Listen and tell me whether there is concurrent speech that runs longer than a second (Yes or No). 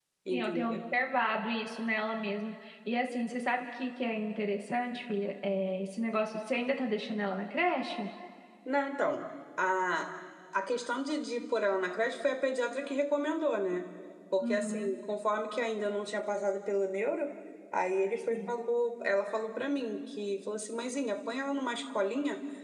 No